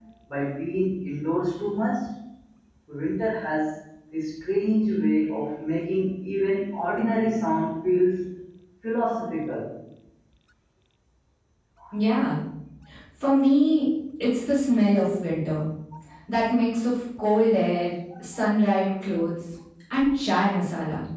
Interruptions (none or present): none